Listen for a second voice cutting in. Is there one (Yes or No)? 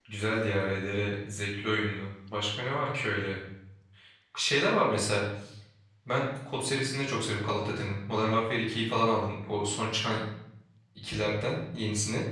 No